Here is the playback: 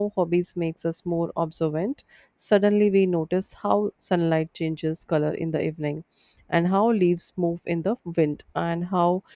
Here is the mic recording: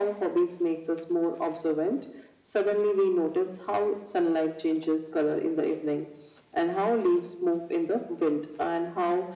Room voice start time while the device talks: none

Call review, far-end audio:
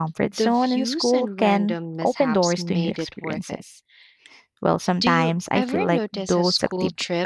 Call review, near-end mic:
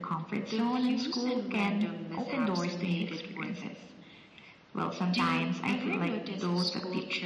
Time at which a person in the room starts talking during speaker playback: none

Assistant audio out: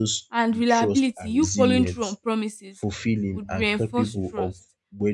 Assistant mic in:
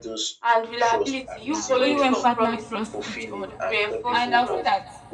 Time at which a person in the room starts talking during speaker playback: 1.4 s

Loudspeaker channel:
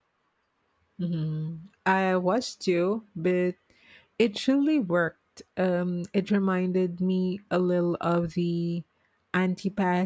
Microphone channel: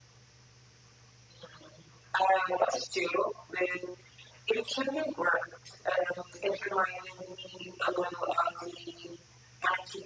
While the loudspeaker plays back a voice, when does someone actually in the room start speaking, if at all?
none

